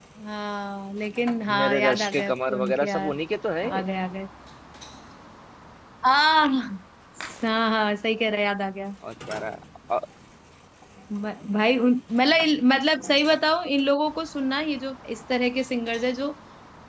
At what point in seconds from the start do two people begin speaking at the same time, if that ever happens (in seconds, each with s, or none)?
1.5 s